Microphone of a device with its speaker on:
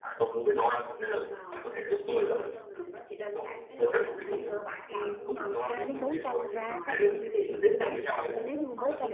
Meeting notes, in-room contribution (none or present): present